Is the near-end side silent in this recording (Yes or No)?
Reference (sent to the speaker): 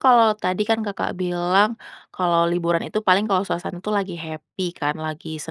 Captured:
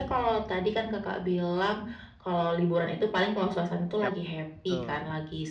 No